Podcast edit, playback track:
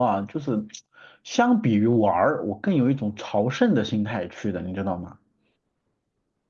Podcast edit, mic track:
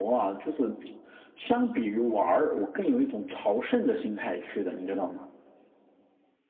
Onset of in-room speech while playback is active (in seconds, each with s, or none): none